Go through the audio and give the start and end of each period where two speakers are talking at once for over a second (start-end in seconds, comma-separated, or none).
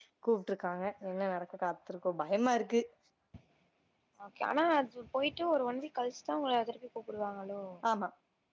none